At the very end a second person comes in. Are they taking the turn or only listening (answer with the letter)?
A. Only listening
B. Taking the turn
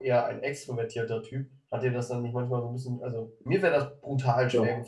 A